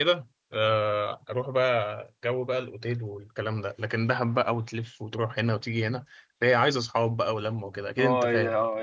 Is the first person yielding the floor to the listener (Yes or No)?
Yes